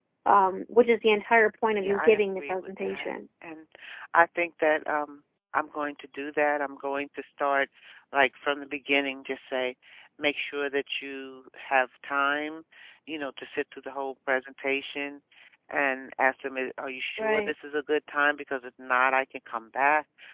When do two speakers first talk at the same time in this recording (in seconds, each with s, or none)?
1.8 s